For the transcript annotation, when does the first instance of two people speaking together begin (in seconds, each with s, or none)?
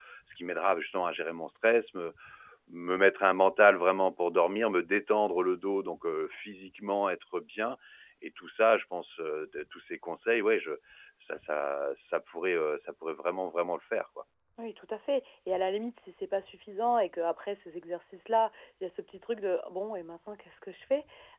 none